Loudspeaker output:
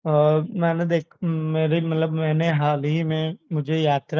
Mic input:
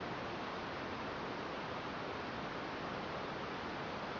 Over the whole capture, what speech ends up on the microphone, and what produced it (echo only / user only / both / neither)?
neither